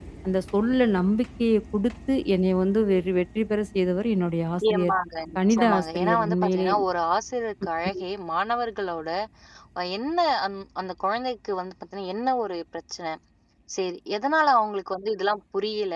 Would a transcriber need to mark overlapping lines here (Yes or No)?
Yes